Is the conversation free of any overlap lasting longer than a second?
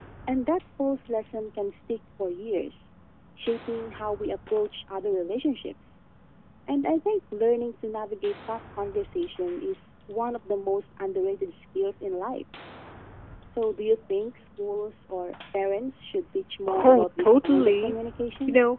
No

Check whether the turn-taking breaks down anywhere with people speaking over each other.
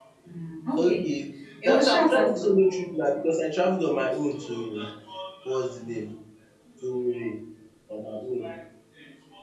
Yes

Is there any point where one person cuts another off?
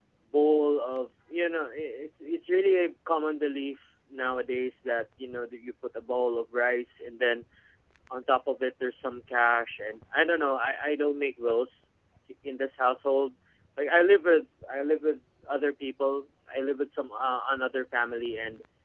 No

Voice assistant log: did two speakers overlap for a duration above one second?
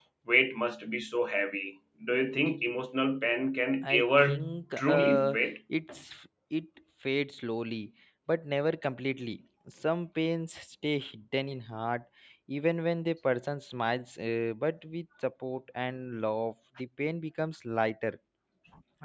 Yes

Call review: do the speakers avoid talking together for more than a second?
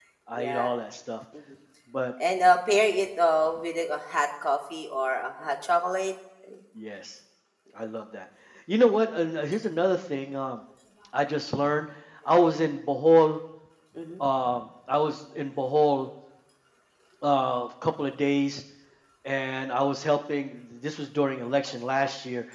Yes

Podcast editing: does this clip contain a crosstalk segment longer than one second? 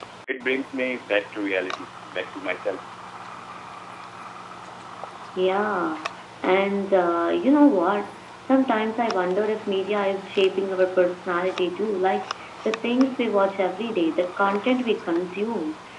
No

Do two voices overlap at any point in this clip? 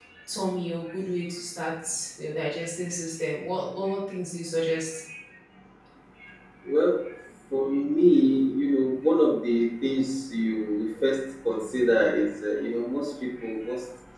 No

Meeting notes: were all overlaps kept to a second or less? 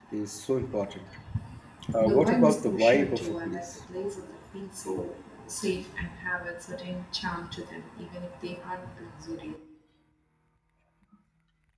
No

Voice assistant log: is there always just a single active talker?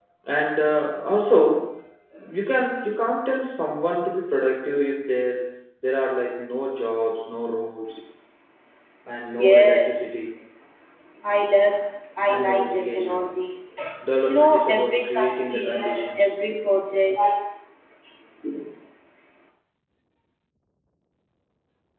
No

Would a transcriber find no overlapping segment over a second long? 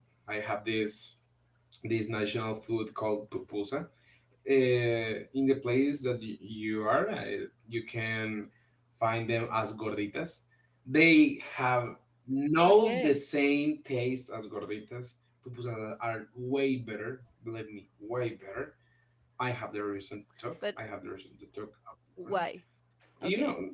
Yes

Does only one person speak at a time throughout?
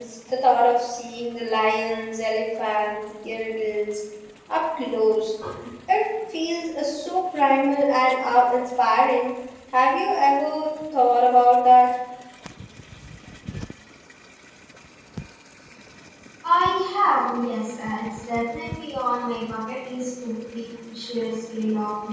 Yes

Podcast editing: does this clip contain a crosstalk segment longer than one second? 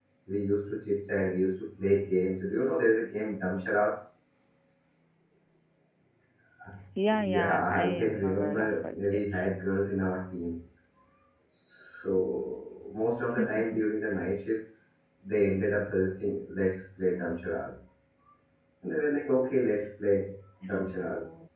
Yes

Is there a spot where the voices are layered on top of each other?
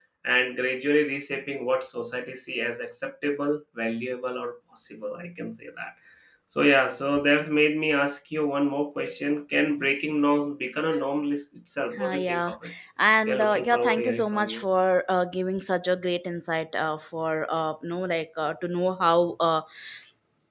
Yes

